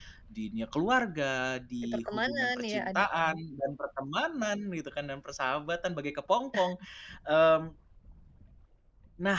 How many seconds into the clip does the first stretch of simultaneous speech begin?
1.8 s

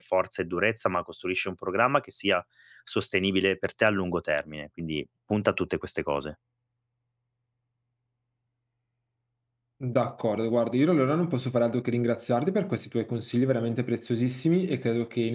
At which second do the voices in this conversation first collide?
none

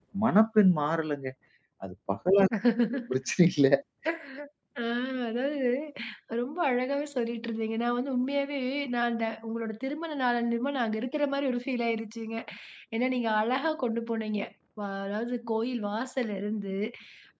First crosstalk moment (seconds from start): none

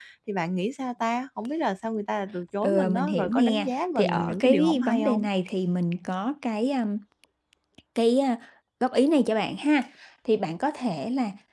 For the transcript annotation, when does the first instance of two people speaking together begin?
2.6 s

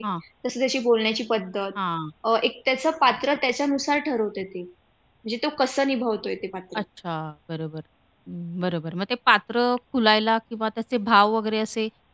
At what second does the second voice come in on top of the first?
none

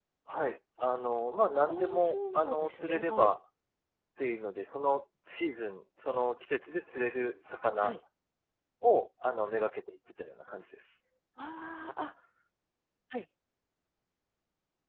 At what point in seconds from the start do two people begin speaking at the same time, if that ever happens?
1.7 s

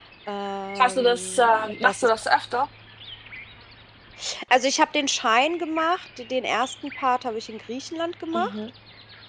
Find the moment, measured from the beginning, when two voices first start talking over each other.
0.8 s

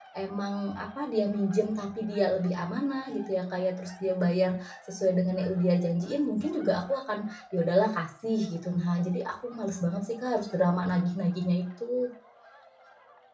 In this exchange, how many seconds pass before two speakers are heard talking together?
none

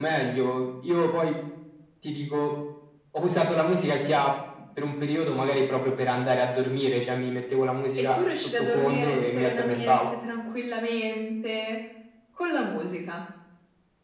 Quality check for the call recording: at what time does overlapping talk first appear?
8.0 s

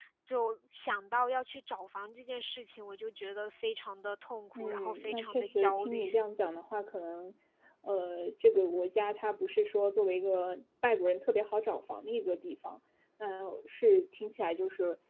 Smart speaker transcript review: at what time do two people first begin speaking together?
4.5 s

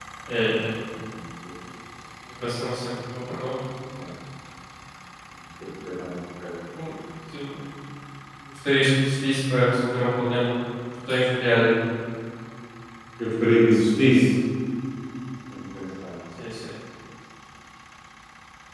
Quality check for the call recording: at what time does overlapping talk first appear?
none

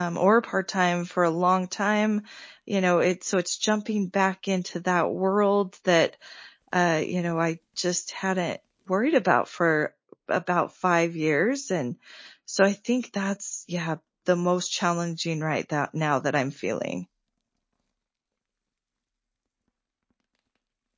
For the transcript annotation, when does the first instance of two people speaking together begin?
none

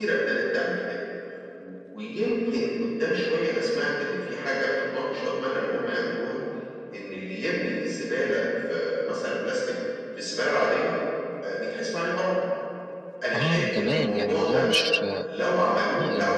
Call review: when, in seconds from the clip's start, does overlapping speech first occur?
13.3 s

